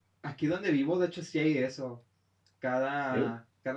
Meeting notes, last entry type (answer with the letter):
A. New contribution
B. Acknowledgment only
B